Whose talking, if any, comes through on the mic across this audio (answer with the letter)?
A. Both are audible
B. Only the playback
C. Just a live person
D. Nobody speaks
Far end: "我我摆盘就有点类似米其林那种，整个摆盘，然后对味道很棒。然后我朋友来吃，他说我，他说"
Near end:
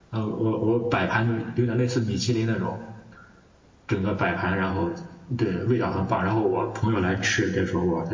B